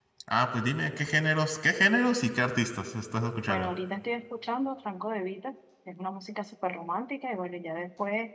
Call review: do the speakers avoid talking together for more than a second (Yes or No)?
Yes